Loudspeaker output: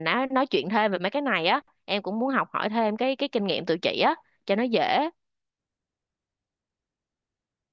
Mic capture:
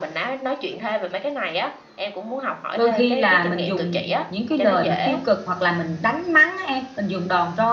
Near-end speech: present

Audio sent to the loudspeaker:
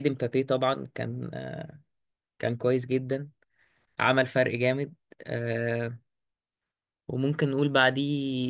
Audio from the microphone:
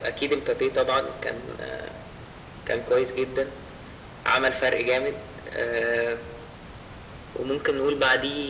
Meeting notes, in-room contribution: none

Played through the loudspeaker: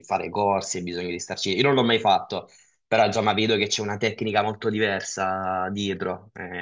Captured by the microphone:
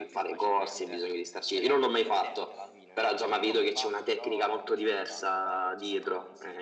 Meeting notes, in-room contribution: present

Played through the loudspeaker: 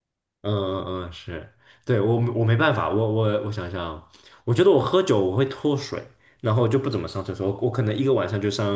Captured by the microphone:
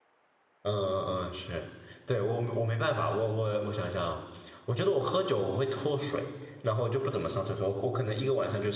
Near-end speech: none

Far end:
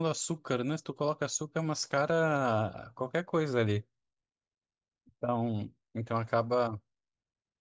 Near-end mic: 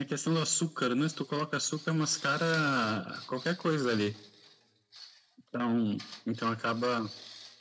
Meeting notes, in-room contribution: none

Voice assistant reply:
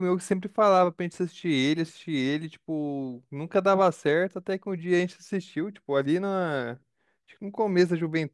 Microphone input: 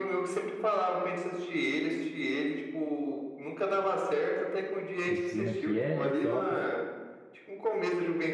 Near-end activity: present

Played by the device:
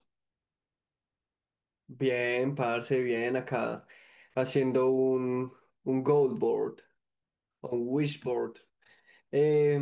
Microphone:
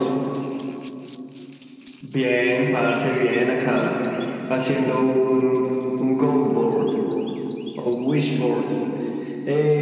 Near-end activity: none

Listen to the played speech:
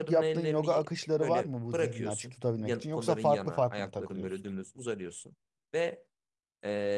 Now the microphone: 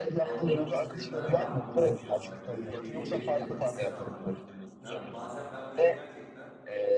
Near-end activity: present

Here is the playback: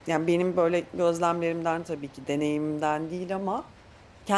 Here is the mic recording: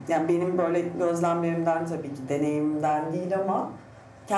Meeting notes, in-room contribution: none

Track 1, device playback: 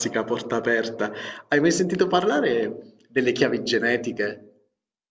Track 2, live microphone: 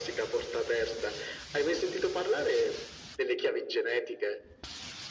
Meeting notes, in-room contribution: none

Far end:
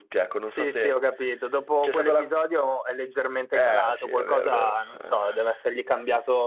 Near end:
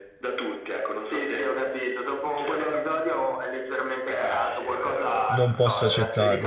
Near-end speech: present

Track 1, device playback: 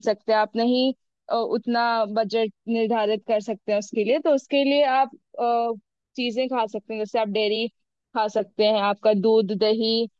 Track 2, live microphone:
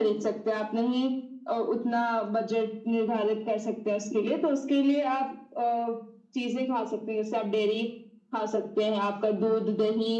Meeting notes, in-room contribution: none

